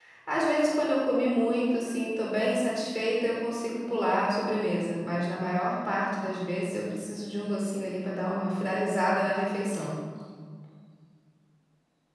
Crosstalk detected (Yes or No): No